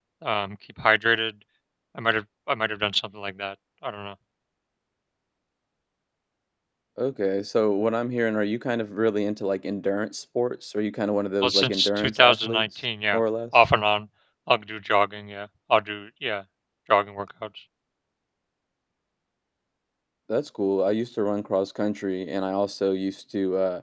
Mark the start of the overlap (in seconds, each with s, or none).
11.4 s